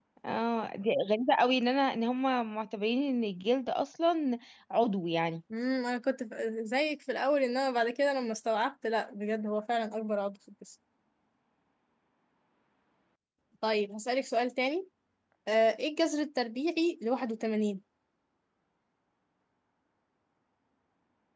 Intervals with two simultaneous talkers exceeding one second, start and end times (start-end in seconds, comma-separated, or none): none